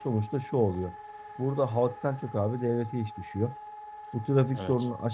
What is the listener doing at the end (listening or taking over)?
listening